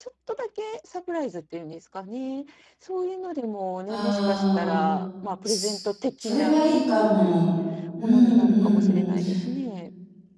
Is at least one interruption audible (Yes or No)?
Yes